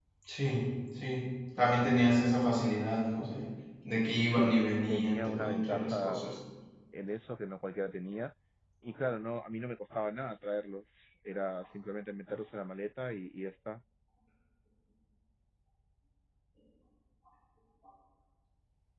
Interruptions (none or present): present